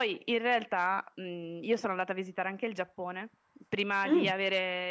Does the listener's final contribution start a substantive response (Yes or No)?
No